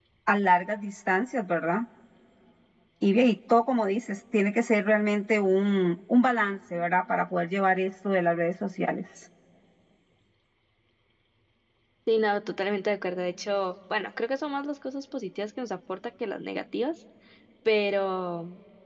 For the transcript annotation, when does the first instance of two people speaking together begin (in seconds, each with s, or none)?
none